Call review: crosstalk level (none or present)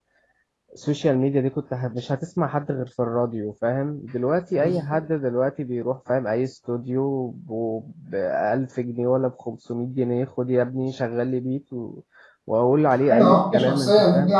present